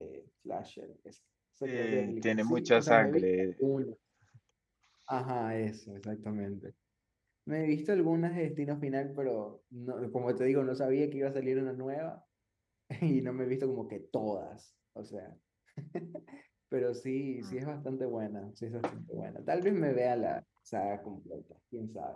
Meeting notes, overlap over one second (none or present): present